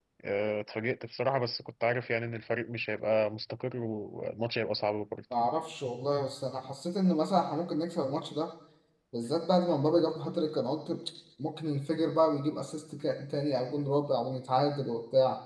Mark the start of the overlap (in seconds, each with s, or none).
none